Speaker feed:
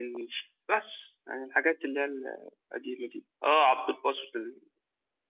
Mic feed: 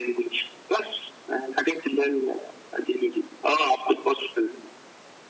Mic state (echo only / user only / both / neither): echo only